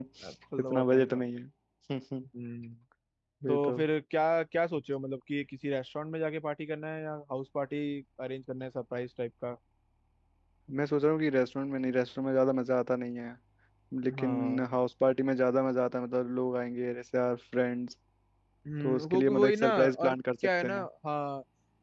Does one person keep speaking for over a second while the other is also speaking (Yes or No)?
Yes